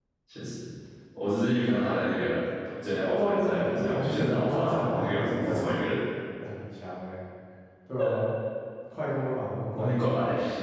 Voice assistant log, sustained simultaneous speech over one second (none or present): present